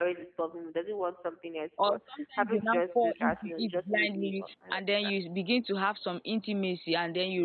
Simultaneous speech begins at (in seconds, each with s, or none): 1.8 s